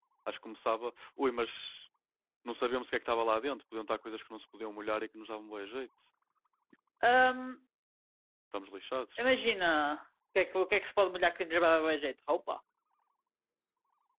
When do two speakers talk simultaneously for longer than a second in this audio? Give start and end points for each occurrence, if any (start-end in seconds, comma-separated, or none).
none